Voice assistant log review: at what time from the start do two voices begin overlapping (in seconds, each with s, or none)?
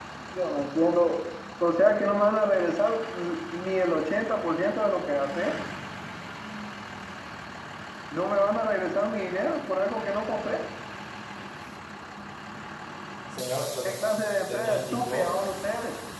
13.8 s